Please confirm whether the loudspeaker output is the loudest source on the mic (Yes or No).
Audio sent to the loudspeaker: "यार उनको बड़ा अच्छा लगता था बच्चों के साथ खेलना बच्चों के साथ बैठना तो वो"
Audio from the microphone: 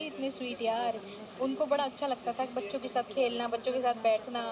Yes